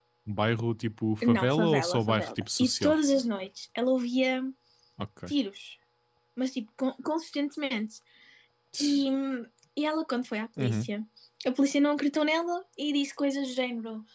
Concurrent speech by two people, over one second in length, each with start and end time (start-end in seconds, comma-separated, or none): 1.2-2.9